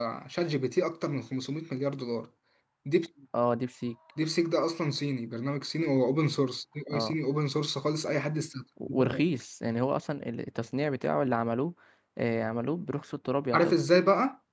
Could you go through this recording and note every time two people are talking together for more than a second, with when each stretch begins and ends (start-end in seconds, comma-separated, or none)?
none